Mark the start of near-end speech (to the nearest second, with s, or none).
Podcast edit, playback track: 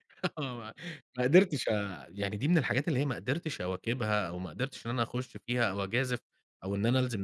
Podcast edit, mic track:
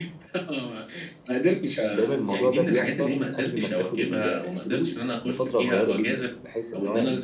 2 s